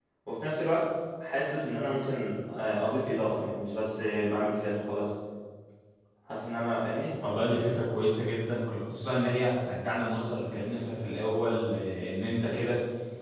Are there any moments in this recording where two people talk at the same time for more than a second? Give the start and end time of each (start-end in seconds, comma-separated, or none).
none